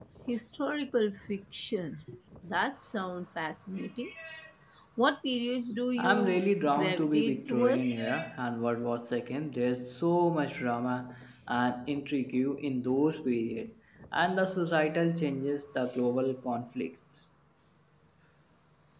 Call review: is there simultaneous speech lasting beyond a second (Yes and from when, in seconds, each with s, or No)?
Yes, from 6.0 s